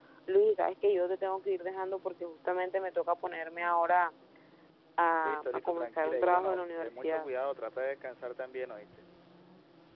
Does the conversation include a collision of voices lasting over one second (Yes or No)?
Yes